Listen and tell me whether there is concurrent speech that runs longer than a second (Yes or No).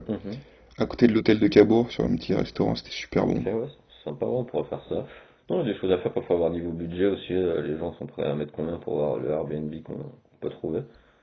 No